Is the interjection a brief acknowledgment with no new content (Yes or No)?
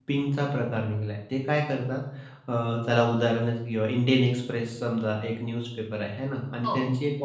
Yes